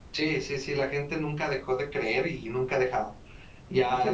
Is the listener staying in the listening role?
No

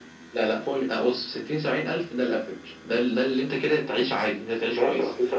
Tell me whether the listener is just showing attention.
No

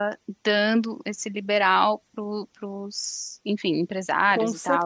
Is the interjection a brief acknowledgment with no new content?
No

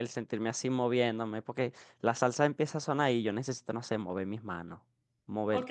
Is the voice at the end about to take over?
Yes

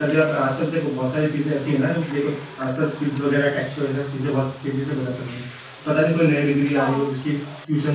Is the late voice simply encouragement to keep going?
Yes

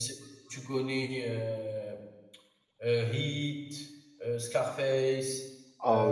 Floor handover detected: Yes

